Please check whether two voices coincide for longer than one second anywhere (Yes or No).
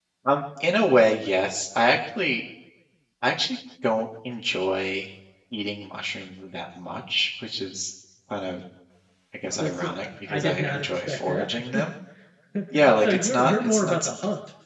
Yes